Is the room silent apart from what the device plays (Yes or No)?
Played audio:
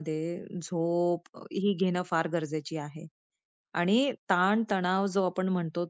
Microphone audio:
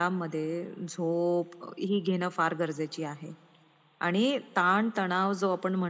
Yes